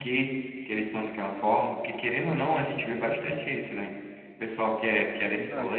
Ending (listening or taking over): listening